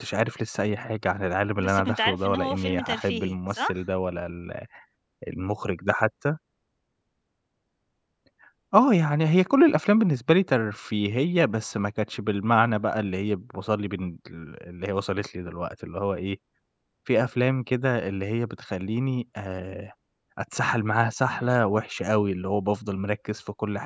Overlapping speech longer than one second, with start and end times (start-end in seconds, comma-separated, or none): 1.6-3.8